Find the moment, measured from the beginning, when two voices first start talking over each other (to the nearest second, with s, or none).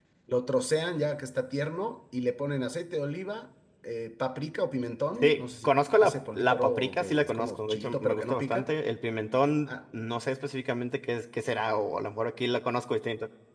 5 s